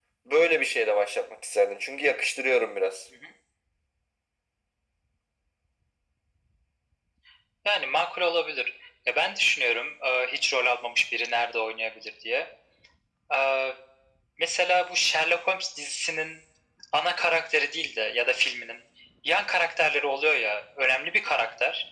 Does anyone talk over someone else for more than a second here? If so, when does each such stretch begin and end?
none

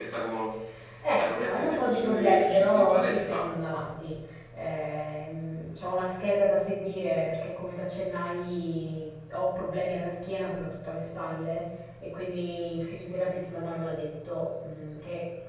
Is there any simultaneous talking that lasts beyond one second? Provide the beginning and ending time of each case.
1.2-3.5

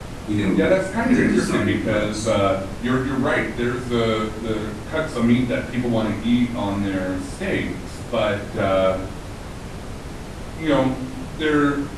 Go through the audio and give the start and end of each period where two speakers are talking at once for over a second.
1.0-2.3

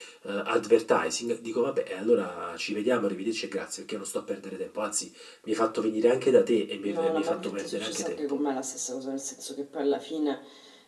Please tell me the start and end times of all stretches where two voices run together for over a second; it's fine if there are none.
6.8-8.4

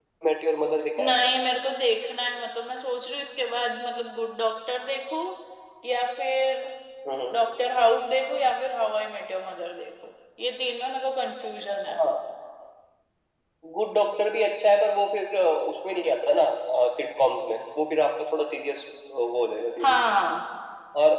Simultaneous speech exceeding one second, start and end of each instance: none

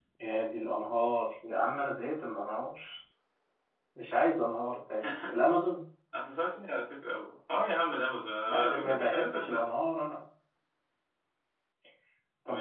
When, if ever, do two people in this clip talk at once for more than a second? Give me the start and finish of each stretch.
8.5-9.7

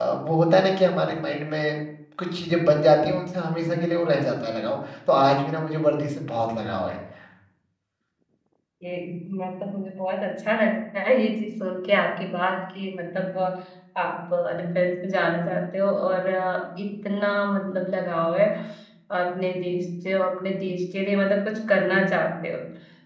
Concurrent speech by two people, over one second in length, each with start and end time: none

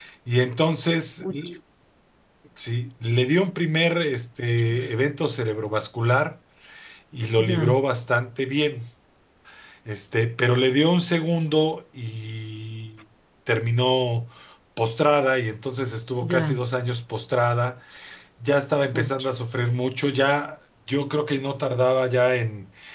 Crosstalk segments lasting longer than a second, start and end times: none

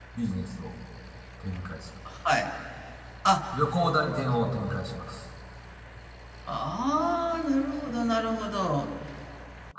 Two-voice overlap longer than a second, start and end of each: none

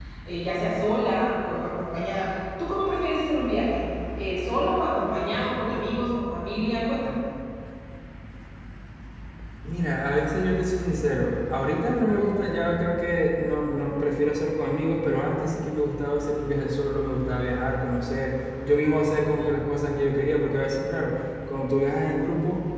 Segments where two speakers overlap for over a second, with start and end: none

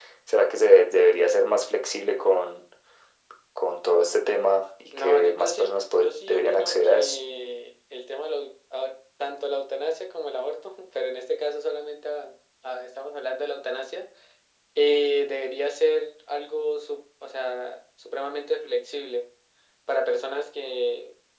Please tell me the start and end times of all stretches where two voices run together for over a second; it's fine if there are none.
4.9-7.2

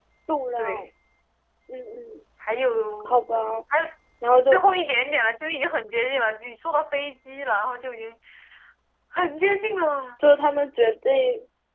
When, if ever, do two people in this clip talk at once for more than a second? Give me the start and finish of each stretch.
none

